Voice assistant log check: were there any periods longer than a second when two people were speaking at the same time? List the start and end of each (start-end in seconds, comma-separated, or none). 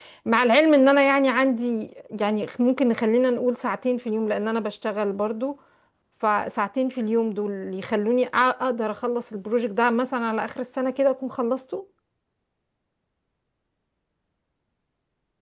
none